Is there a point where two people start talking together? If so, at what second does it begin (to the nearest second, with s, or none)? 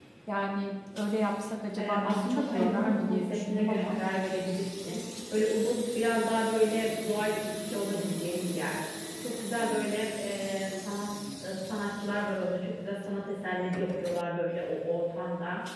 2 s